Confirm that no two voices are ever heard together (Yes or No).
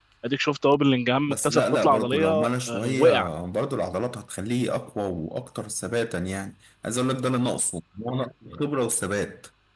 No